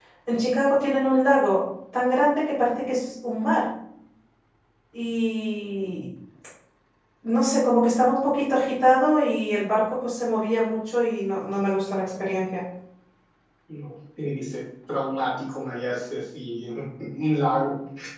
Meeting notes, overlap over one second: none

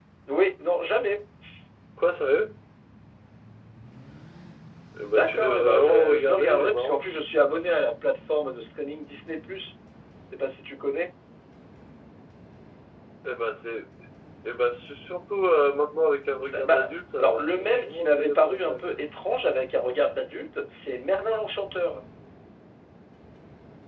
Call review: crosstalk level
present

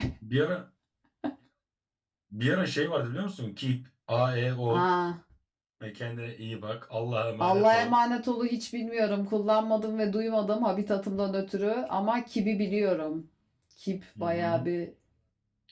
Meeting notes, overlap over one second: none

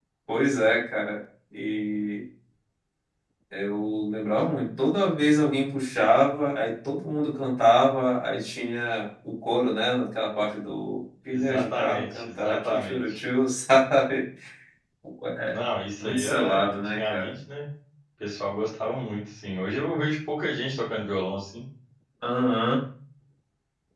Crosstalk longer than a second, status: present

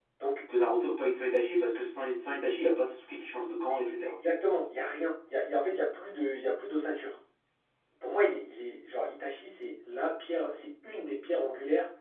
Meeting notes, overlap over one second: none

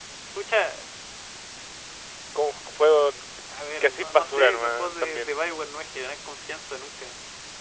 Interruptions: present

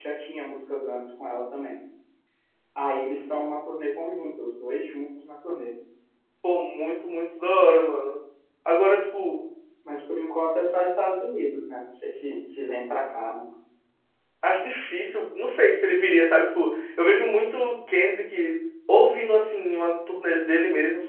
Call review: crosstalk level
none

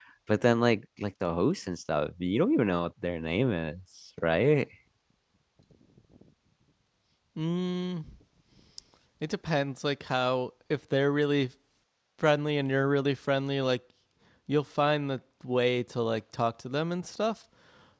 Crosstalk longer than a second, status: none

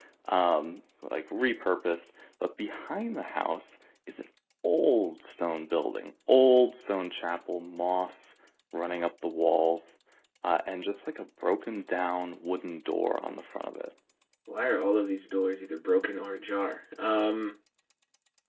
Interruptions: none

